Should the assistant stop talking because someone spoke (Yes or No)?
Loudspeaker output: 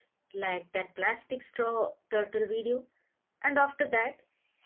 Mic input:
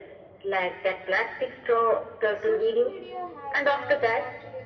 Yes